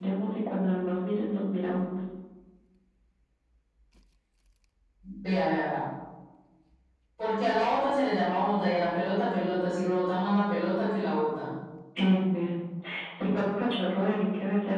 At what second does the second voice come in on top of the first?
none

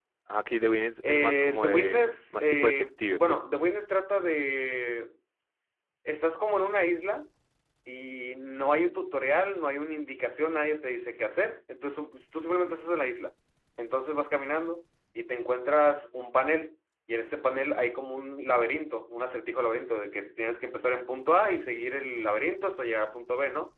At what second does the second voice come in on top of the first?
1.1 s

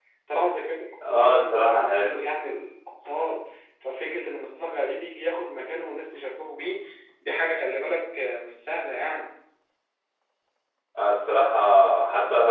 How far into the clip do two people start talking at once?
1.1 s

